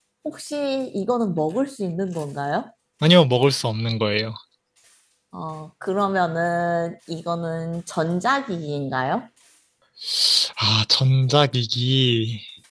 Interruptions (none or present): none